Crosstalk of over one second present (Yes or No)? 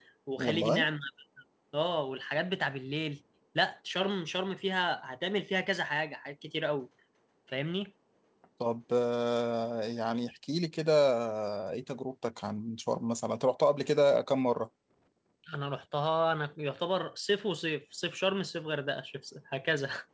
No